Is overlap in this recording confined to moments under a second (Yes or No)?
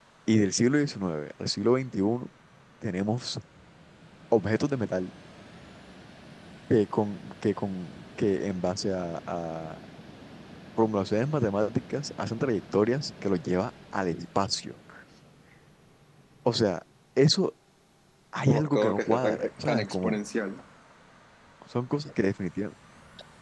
No